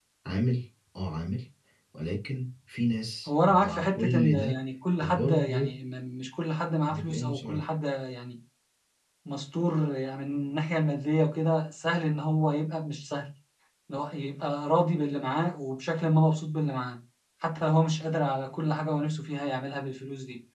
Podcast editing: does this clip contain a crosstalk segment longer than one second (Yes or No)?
Yes